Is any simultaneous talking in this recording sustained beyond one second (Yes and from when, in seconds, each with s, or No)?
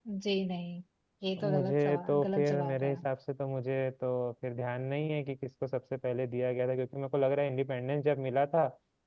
Yes, from 1.4 s